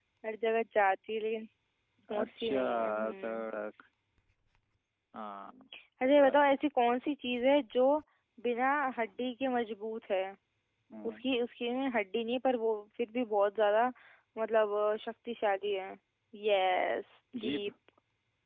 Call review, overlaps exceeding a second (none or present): present